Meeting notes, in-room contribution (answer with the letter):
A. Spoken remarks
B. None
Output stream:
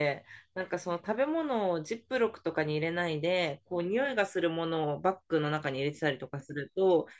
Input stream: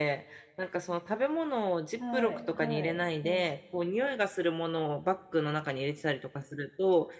A